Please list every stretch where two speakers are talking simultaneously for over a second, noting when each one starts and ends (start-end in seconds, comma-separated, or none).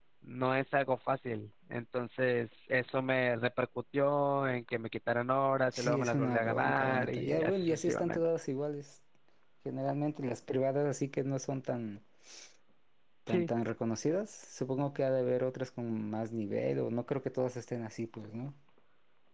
5.7-8.2